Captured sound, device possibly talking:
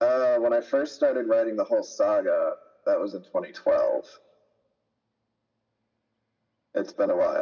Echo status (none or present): present